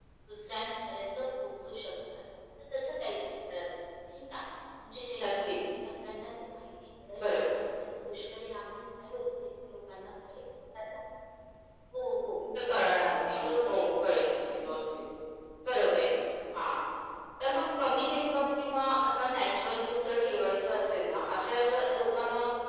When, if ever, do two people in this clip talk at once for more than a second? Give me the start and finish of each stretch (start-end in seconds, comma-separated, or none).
none